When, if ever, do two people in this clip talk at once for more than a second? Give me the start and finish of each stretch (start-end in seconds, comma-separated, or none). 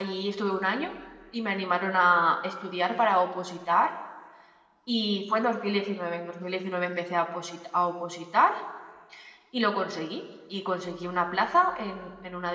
none